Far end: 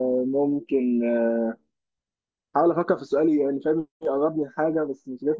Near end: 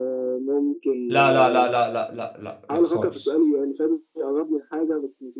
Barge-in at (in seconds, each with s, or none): 1.1 s